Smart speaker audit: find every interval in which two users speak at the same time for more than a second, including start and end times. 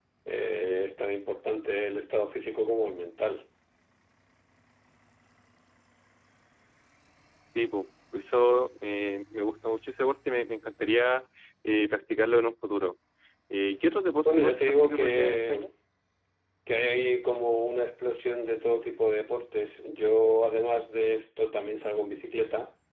14.2-15.7

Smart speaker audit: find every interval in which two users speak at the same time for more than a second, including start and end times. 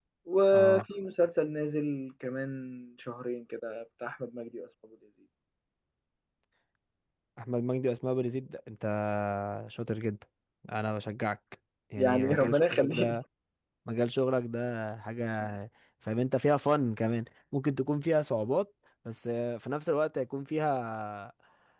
12.0-13.2

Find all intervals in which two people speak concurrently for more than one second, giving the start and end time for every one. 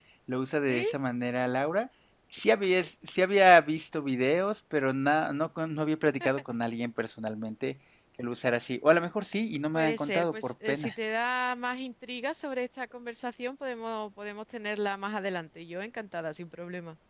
9.7-11.0

